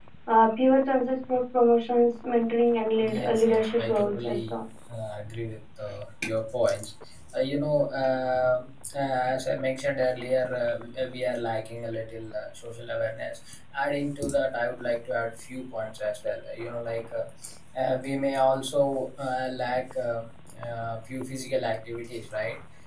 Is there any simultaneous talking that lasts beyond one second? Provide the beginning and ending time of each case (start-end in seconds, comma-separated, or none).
3.0-4.6